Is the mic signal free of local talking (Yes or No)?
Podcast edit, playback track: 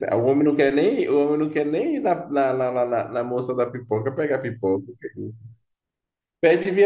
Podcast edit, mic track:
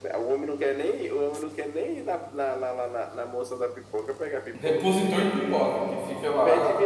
No